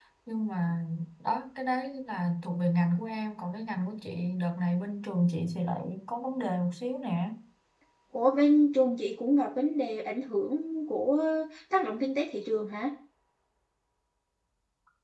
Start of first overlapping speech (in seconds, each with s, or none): none